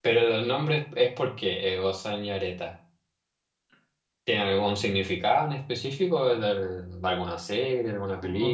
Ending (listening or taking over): taking over